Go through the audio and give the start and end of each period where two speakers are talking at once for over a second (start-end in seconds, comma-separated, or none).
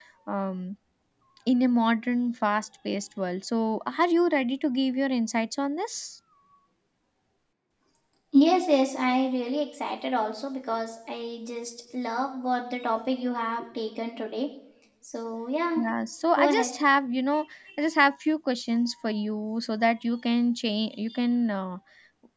none